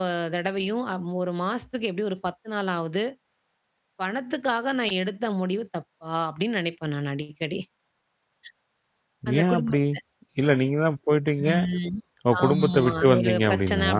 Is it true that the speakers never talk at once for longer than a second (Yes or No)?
No